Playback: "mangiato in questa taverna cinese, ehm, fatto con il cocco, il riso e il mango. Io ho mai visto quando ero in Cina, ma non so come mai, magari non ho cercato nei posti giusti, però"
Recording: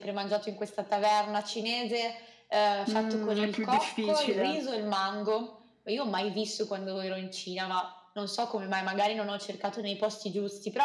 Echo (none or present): present